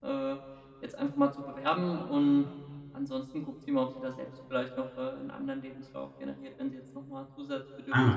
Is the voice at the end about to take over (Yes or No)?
Yes